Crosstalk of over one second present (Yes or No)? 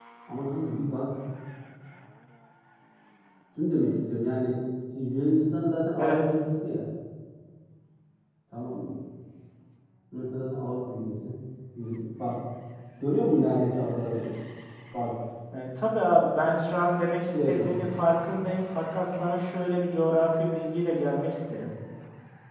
No